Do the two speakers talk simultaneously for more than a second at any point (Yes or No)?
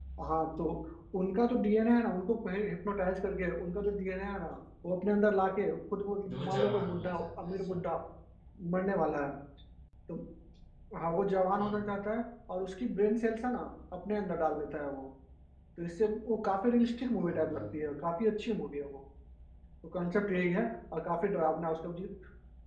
Yes